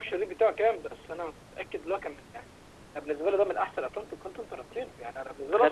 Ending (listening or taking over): listening